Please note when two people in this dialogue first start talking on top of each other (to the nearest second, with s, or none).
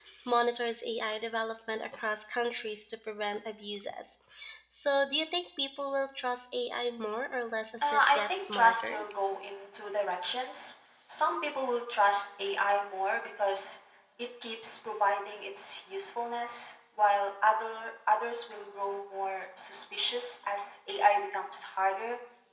8 s